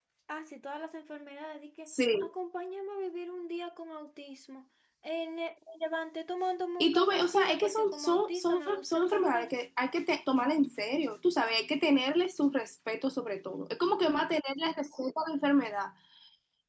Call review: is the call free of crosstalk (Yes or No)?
No